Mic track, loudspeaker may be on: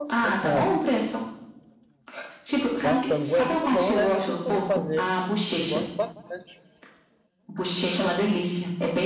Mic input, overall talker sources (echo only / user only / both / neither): both